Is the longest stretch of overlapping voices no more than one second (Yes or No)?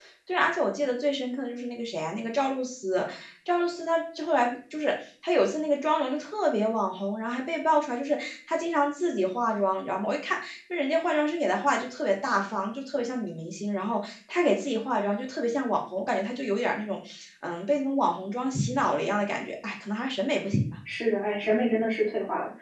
Yes